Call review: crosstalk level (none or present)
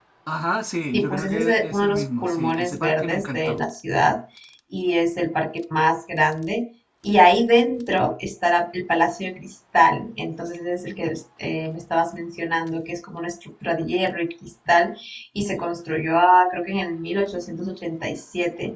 present